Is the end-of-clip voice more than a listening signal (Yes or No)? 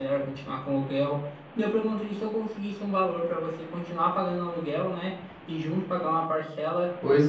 No